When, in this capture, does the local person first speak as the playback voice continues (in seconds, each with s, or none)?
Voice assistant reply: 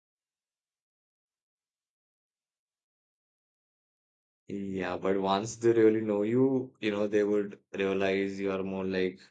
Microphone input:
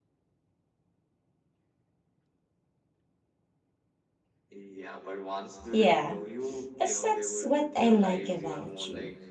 5.7 s